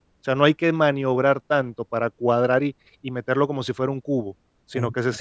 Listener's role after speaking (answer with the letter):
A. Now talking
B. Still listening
B